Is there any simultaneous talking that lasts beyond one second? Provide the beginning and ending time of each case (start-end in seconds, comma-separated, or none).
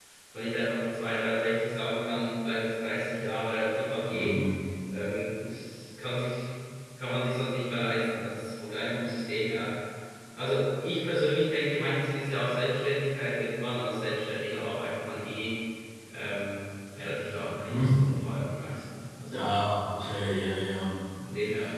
none